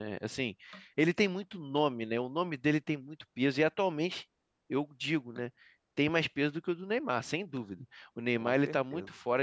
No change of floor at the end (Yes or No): Yes